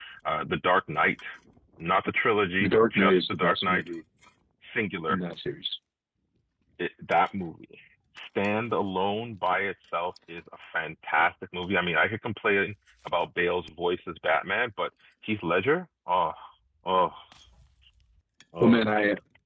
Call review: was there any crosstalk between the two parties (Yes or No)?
Yes